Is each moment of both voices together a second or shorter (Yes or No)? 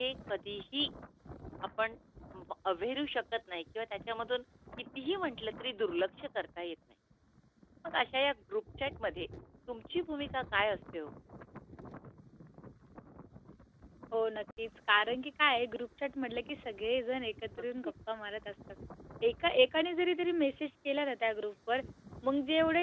Yes